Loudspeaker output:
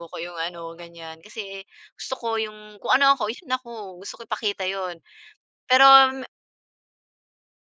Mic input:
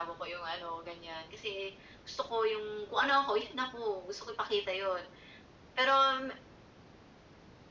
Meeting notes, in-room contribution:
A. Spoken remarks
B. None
B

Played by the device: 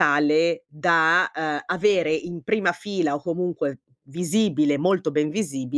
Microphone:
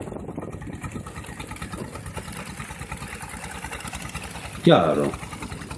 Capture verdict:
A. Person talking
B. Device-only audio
A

